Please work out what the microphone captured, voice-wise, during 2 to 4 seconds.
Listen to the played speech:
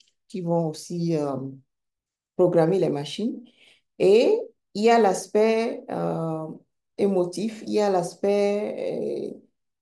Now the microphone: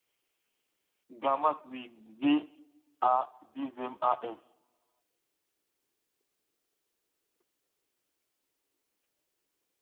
user only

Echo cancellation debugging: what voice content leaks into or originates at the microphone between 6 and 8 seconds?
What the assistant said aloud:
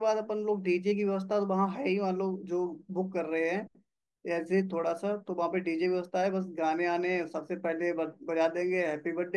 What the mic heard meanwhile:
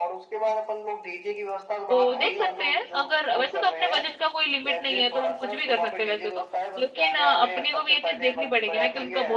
both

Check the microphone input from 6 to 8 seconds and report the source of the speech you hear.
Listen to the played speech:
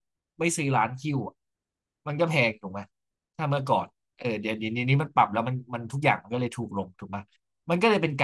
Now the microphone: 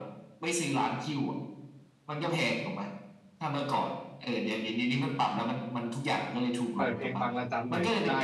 both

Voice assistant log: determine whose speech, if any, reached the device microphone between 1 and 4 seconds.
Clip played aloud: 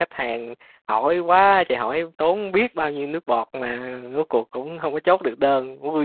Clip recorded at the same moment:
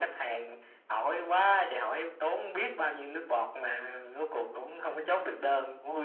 echo only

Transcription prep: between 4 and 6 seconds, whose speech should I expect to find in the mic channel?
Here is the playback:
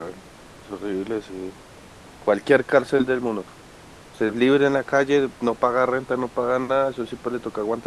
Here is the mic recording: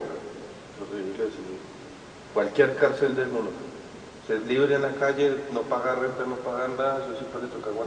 echo only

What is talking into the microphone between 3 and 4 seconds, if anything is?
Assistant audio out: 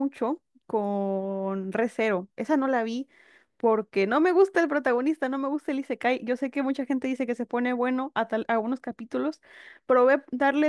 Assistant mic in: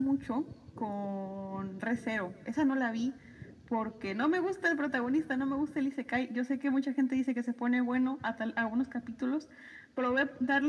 echo only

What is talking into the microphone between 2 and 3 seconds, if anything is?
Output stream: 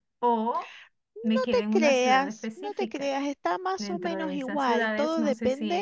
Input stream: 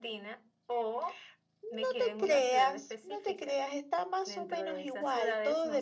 echo only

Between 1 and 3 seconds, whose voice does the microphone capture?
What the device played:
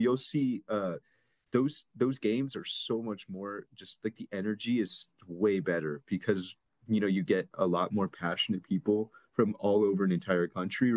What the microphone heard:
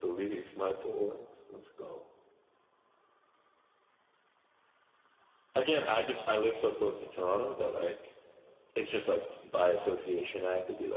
user only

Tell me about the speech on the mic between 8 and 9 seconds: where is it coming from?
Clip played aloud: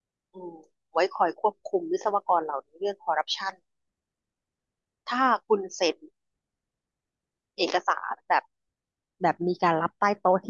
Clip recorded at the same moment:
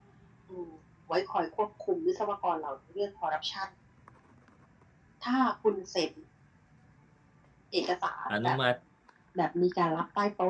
both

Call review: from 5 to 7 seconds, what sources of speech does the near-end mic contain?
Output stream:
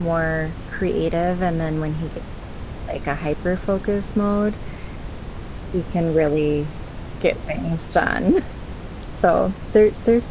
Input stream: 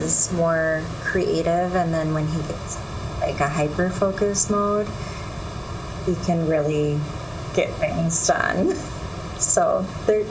echo only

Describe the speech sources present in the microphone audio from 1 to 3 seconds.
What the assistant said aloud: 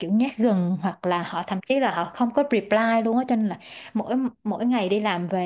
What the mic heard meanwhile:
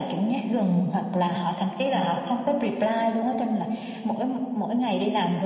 echo only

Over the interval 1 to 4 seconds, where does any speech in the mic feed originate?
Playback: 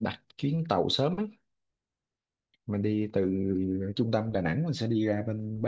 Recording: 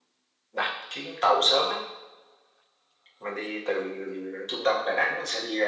echo only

